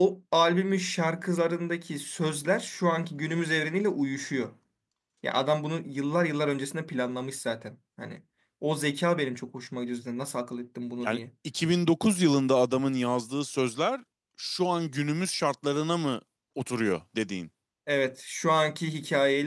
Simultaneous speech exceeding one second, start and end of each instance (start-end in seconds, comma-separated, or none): none